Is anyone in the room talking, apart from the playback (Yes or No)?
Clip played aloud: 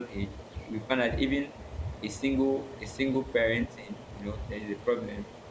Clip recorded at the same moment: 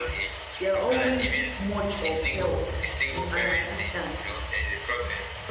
Yes